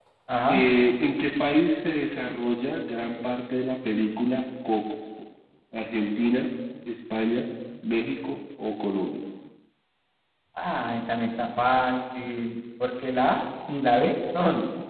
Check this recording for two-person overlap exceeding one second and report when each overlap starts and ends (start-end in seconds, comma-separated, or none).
none